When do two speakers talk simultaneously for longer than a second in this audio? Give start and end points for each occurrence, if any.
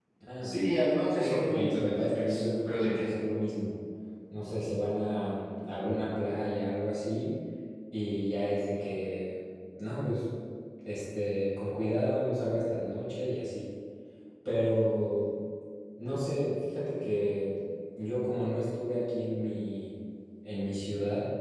1.2-3.0

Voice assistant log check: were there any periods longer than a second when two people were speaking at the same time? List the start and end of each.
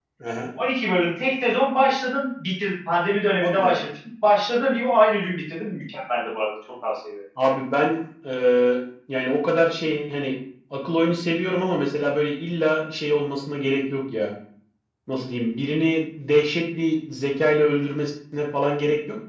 none

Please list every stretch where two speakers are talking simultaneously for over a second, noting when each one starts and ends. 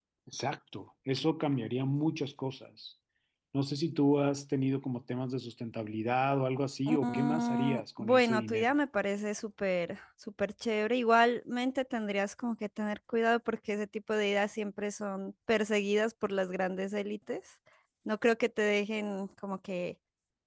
6.9-8.7

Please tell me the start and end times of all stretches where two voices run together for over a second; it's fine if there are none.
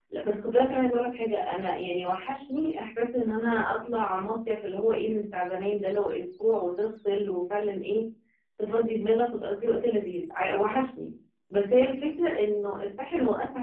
none

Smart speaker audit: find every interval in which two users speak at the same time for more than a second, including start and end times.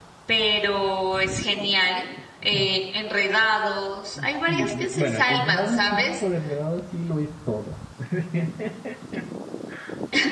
4.5-6.2

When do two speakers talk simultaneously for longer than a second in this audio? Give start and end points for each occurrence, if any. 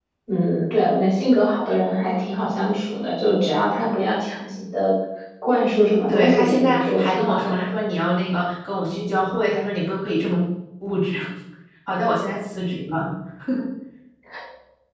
6.1-7.6

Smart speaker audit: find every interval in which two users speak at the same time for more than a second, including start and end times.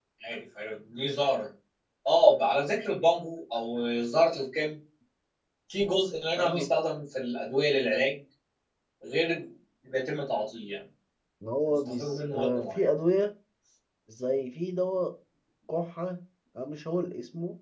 11.7-12.9

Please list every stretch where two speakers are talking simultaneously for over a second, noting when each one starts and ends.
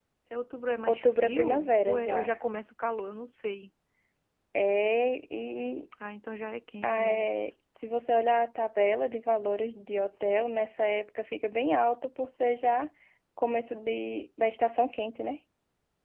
0.9-2.2

